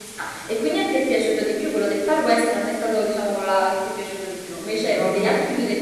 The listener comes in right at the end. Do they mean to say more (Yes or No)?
No